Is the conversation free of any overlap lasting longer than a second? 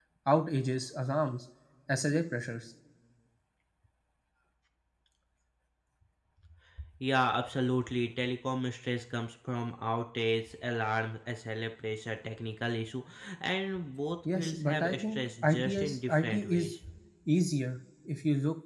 No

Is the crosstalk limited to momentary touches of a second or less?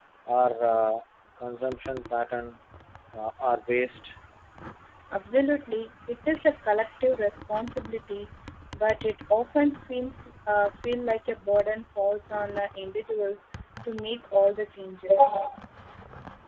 Yes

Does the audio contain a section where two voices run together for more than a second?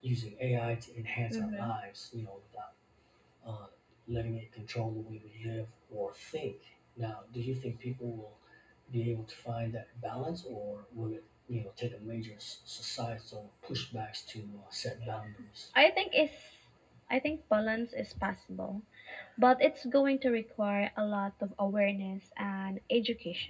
No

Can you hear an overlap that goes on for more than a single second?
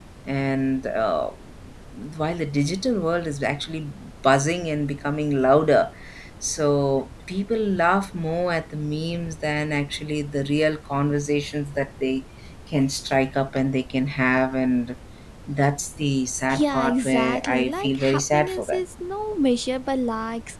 Yes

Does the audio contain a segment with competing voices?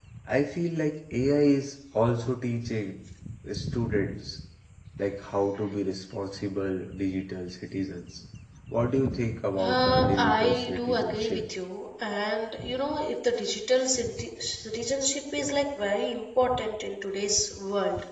Yes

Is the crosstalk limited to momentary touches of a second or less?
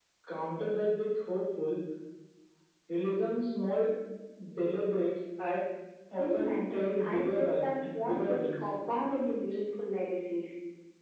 No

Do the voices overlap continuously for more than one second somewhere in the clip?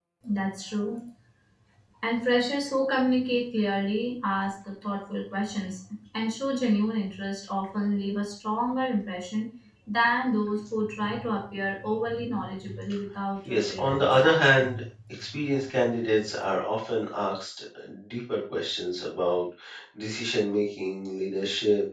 Yes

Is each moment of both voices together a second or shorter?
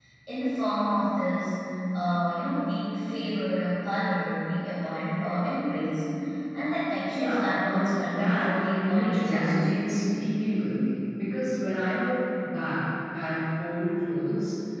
No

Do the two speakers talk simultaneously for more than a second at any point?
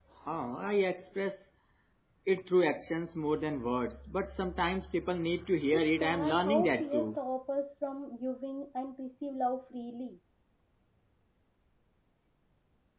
Yes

